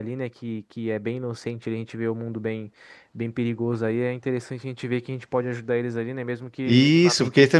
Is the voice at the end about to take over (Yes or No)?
Yes